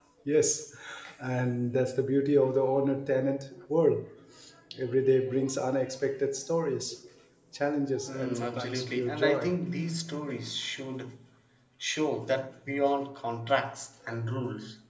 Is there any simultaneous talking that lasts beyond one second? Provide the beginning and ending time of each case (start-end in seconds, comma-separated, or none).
8.1-9.5